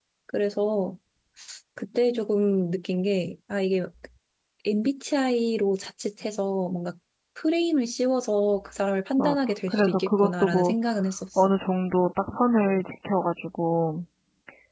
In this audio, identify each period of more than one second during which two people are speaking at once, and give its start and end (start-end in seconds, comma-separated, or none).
9.2-10.7